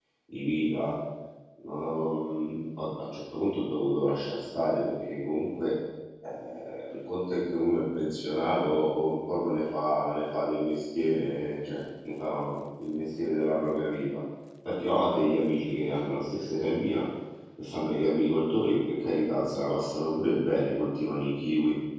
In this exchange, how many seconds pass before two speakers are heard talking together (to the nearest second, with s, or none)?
none